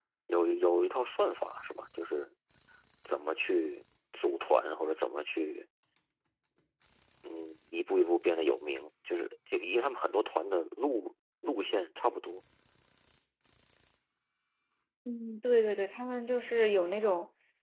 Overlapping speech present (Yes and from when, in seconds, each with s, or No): No